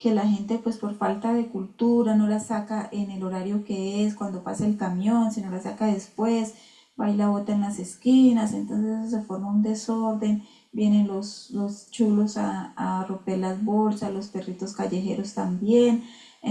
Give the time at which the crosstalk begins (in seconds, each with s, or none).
none